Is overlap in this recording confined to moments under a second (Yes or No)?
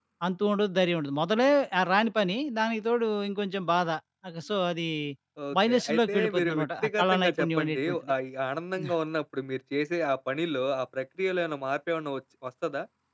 No